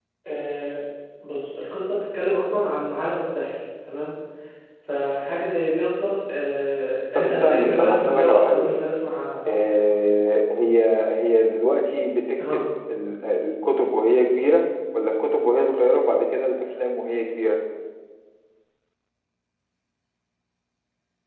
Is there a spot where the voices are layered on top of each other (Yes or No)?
Yes